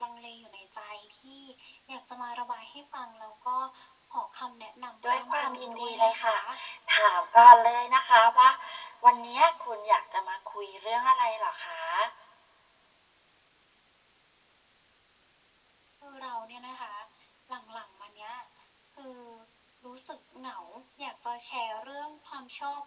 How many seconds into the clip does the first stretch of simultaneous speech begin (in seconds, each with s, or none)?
5.0 s